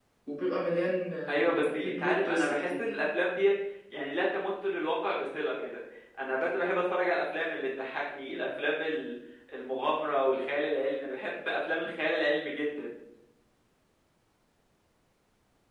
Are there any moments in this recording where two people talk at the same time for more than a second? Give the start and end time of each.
1.3-2.9

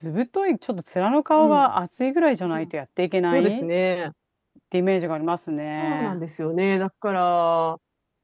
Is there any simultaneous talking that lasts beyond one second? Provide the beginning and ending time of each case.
none

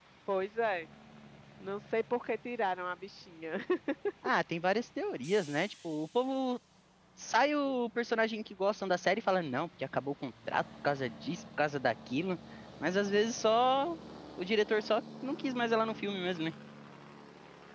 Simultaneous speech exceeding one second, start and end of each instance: none

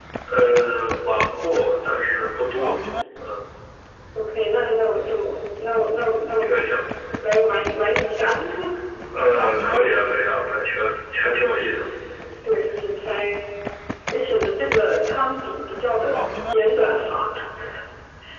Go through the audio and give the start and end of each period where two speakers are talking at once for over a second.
none

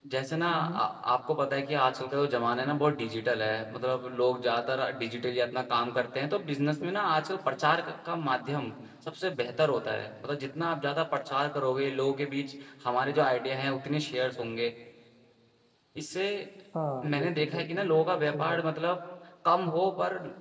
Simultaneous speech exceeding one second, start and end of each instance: 17.1-18.6

